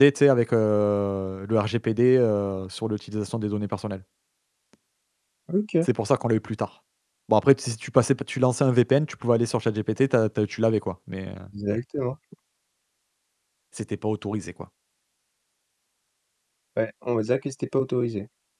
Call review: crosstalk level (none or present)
none